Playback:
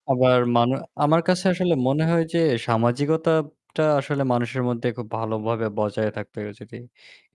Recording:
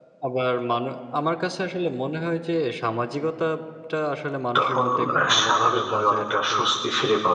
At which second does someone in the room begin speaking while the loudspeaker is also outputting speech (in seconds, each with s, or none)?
4.6 s